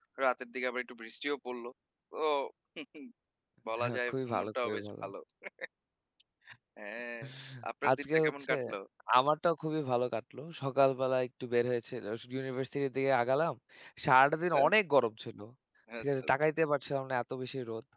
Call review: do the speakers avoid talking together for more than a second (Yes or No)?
No